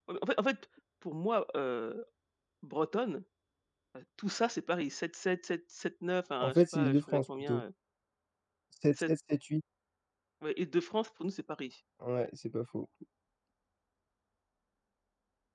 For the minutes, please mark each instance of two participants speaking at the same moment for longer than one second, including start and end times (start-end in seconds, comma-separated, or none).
6.4-7.6